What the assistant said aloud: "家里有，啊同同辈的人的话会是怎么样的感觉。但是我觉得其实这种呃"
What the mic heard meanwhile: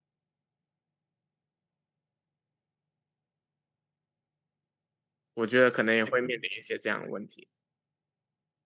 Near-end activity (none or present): present